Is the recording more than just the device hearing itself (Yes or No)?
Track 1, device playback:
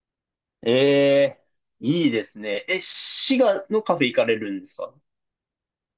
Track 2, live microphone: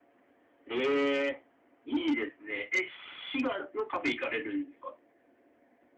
No